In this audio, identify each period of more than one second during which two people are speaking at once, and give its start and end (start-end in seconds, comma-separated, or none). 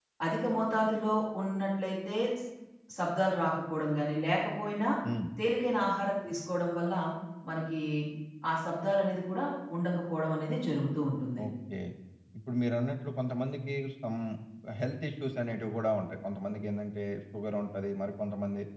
none